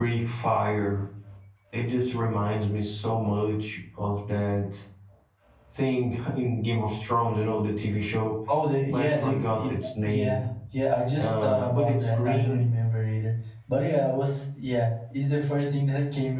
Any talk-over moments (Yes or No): Yes